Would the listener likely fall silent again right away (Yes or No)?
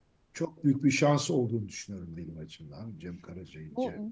No